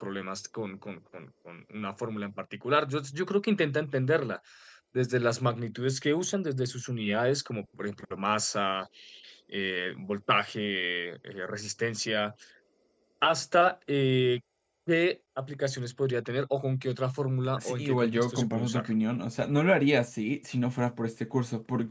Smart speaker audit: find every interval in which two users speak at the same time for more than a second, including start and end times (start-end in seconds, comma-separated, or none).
17.6-18.8